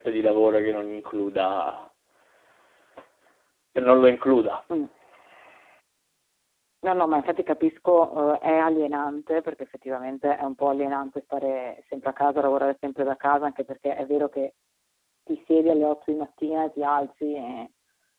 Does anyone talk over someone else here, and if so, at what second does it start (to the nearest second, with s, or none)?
none